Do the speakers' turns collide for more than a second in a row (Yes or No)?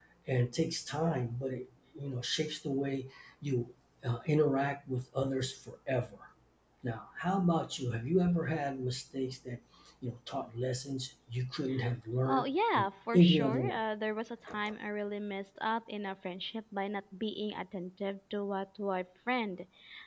Yes